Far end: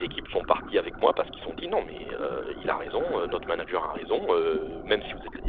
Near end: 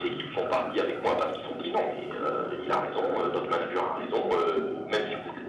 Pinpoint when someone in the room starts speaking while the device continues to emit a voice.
none

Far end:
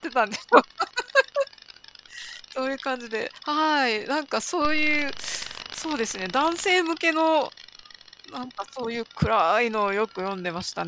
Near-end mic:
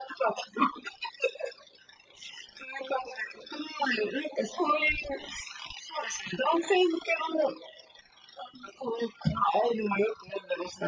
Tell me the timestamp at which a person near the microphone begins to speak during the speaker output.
none

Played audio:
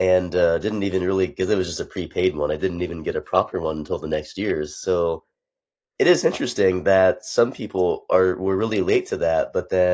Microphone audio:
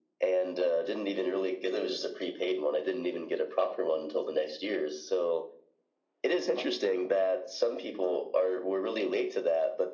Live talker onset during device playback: none

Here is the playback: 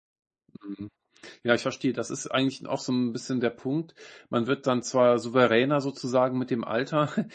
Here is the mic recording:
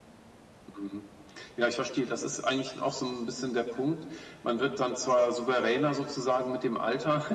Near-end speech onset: none

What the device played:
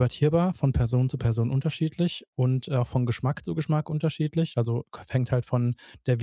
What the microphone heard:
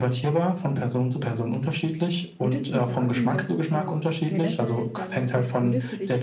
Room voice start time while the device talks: 2.4 s

